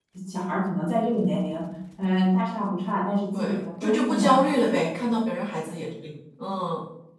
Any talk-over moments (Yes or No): Yes